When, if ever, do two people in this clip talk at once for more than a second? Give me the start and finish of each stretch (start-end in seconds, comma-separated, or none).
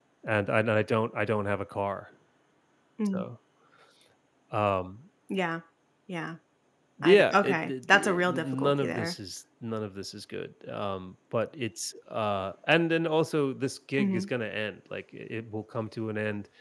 7.0-9.1